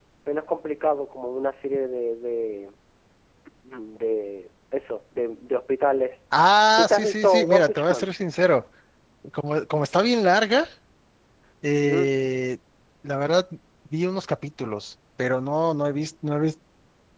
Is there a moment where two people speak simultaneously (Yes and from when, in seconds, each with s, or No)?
Yes, from 6.8 s